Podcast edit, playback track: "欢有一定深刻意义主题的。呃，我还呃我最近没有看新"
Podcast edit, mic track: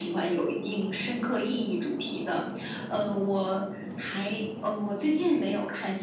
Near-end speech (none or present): none